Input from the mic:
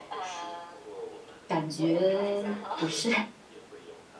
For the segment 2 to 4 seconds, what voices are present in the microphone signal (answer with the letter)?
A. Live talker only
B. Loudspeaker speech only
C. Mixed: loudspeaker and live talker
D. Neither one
C